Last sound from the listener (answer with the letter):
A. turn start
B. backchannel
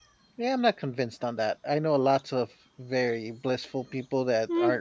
A